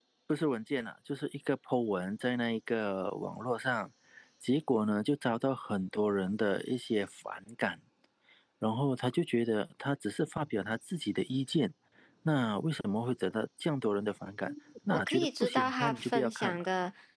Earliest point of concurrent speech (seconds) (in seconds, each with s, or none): 14.9 s